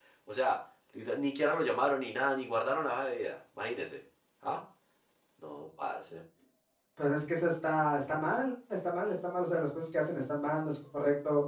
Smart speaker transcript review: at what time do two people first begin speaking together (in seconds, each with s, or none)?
none